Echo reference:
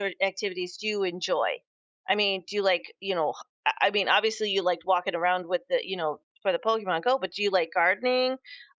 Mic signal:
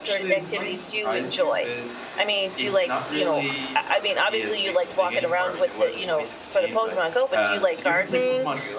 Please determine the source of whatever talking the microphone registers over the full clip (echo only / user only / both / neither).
both